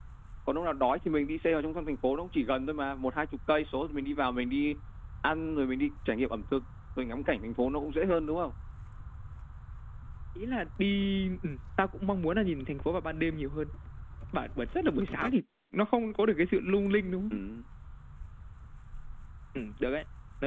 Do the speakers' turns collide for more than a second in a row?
No

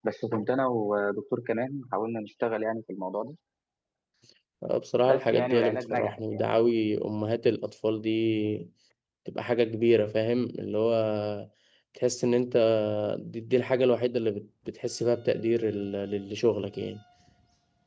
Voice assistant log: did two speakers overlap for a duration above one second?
Yes, from 5.1 s

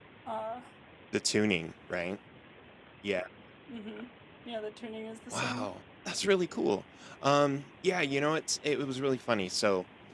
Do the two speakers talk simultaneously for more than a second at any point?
No

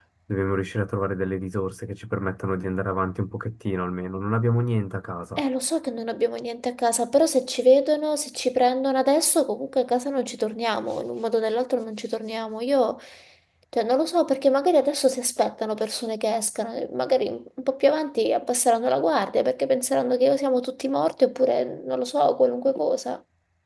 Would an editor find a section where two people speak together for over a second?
No

